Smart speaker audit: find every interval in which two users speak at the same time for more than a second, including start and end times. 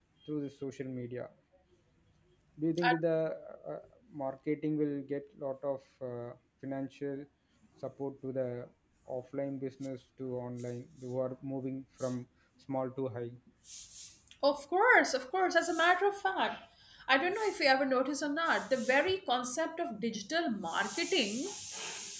none

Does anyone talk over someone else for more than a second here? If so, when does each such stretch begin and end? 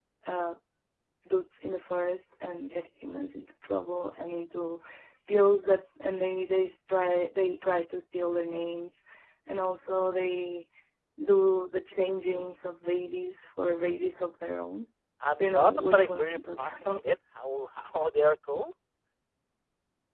15.4-17.0

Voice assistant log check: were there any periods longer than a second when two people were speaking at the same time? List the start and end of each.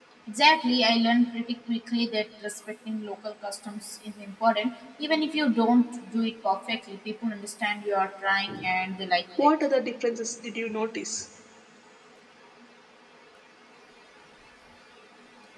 none

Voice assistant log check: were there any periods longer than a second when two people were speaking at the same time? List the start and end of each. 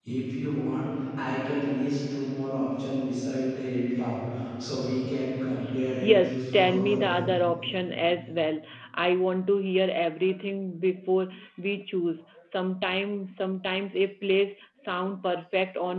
6.0-7.2

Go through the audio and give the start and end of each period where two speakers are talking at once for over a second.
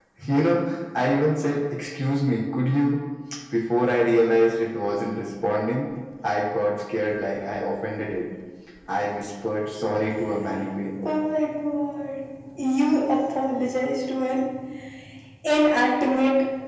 none

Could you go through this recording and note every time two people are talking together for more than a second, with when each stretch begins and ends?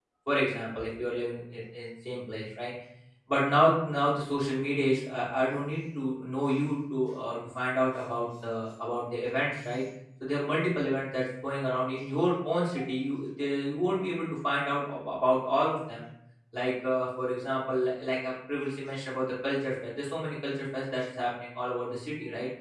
none

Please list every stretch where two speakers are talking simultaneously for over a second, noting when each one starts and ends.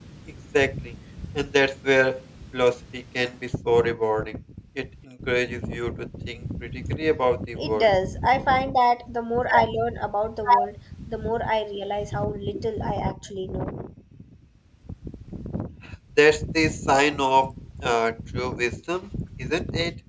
none

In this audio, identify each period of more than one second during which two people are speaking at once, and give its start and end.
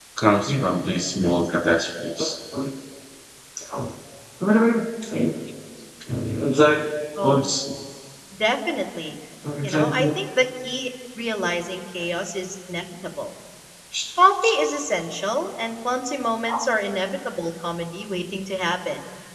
none

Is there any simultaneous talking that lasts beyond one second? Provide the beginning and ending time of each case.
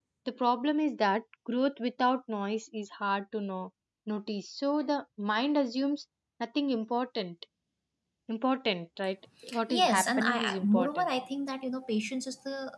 9.7-11.1

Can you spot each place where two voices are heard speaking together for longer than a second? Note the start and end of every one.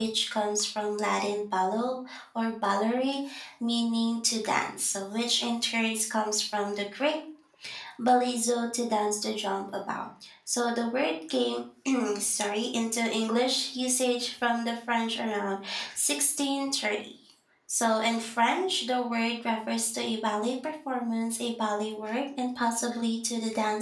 none

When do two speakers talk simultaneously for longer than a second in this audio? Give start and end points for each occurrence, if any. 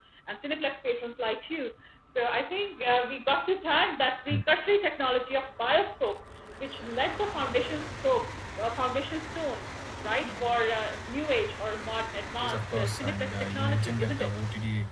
12.4-14.4

